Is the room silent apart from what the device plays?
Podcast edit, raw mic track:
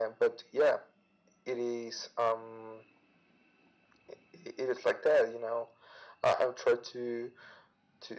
Yes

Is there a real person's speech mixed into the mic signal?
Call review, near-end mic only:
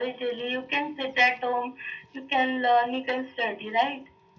No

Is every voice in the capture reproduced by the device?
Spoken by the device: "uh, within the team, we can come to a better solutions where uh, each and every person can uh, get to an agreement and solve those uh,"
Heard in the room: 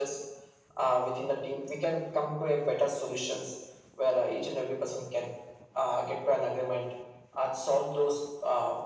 Yes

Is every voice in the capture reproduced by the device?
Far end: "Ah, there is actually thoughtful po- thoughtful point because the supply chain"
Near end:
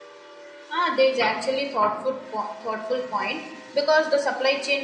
Yes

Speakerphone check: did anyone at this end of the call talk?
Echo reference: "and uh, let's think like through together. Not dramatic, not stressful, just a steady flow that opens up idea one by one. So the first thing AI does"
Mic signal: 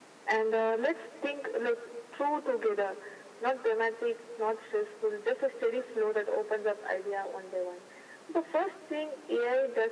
No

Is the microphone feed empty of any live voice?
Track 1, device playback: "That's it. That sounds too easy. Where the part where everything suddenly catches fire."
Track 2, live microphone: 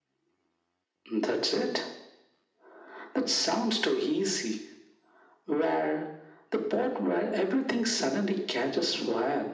Yes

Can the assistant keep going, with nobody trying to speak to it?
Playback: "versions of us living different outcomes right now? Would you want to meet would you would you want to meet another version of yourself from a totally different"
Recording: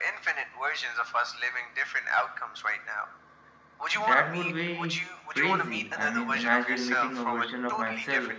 No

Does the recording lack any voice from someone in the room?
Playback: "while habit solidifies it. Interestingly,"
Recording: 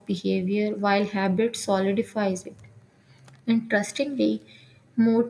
Yes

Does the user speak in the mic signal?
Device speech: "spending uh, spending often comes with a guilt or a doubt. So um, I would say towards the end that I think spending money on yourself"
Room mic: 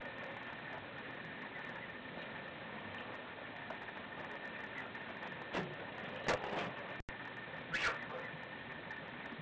No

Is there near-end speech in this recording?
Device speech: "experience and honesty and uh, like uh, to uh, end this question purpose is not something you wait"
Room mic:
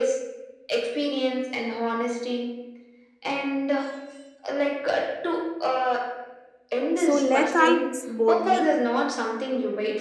Yes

